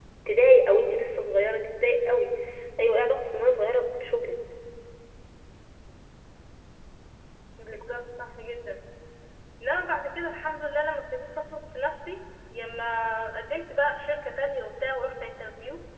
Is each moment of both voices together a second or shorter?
Yes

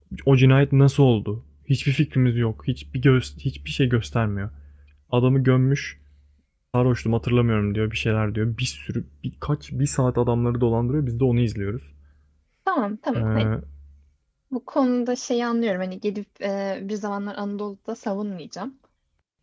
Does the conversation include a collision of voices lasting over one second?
No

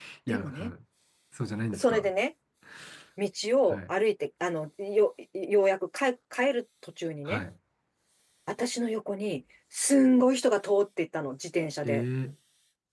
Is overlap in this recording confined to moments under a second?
Yes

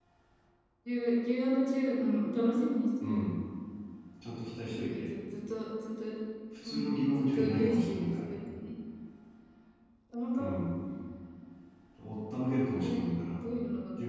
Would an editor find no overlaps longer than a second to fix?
No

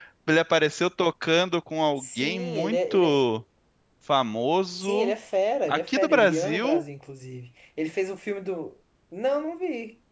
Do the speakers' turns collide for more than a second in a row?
Yes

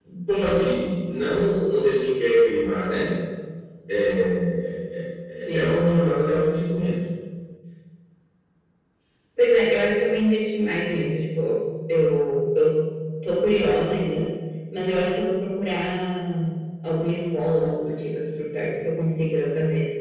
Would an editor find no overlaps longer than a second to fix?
Yes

